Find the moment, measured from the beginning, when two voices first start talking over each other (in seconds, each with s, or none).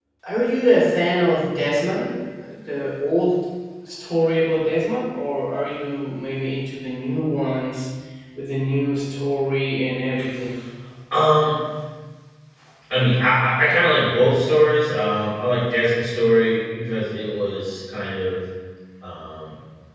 none